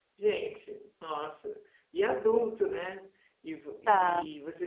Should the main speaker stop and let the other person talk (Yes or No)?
No